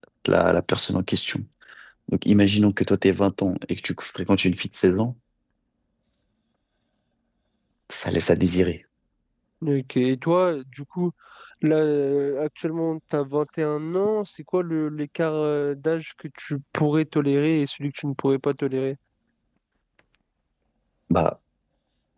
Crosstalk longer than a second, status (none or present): none